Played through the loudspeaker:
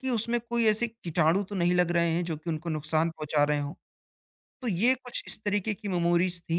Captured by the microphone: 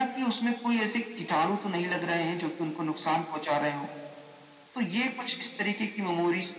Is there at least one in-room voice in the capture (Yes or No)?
No